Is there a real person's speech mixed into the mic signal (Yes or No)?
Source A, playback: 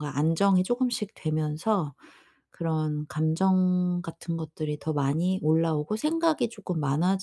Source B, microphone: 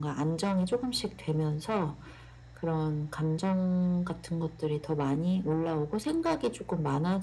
No